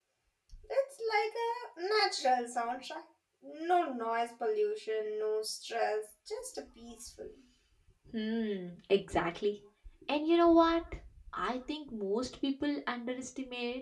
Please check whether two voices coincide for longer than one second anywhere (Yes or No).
No